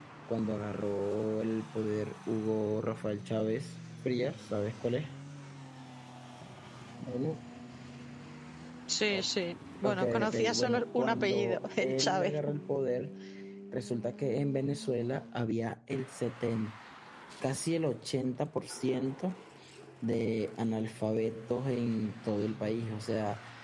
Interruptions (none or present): present